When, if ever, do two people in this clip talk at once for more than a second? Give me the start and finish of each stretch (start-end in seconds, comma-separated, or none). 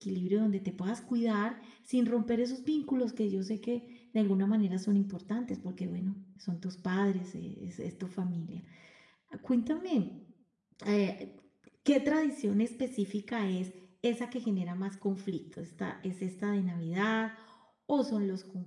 none